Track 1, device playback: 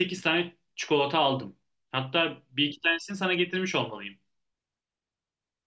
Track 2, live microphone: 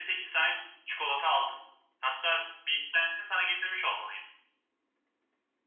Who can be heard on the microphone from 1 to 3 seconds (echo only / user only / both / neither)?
echo only